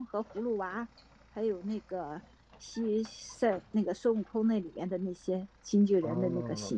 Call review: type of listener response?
taking over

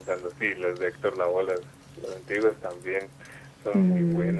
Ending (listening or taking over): taking over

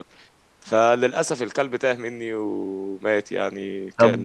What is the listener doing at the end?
taking over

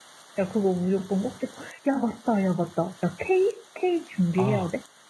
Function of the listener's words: taking over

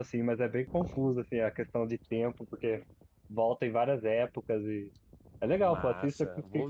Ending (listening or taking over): taking over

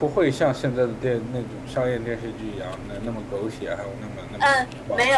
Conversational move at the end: taking over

